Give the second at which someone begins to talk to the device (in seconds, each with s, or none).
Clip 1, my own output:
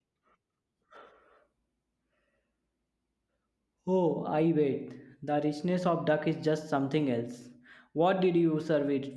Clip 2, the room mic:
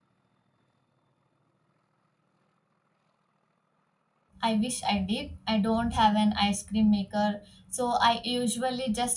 4.4 s